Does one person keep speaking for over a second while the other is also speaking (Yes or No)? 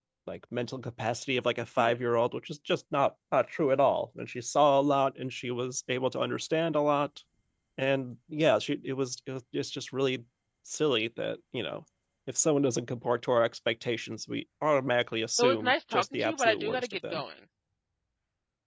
Yes